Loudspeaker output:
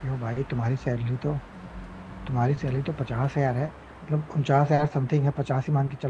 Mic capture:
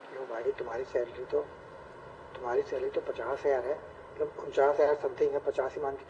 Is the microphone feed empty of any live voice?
Yes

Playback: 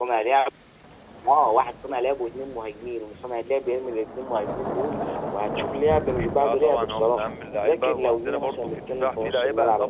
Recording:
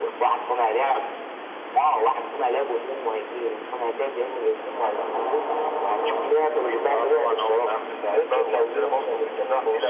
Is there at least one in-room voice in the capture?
No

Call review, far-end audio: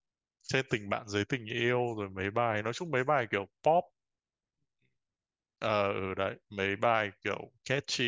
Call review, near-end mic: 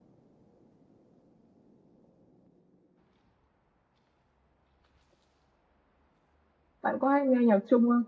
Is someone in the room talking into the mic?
Yes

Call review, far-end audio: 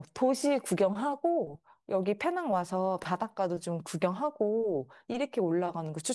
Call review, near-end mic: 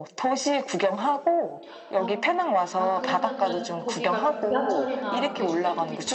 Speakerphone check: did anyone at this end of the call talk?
Yes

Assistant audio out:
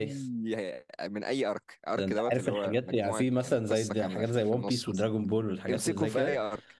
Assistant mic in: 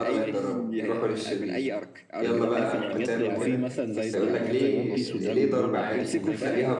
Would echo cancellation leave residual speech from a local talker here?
Yes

